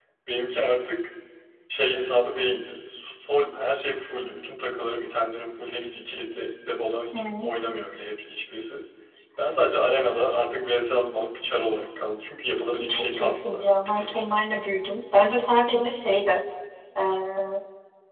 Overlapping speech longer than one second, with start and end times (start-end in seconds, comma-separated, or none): 12.9-14.4